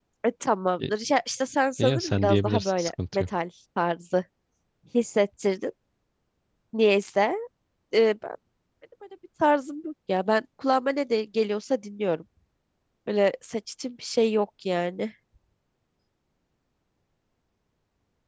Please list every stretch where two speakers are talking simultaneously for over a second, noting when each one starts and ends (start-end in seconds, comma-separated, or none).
1.8-3.2